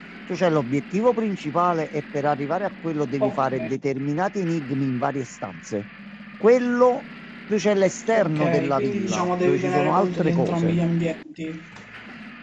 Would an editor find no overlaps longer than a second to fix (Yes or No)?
No